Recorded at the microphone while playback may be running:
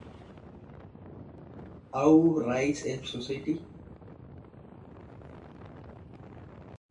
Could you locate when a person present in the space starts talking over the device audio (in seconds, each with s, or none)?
1.9 s